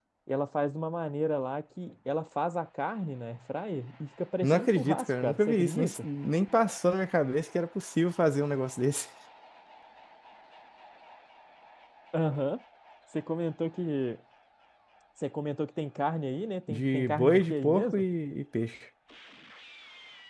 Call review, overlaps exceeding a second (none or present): present